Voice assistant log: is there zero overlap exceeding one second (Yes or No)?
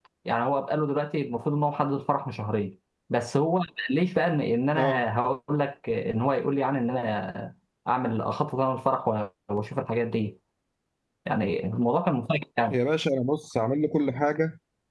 Yes